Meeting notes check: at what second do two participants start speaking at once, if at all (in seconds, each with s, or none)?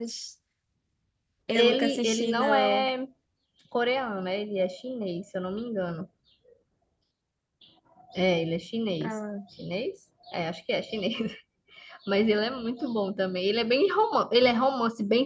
1.5 s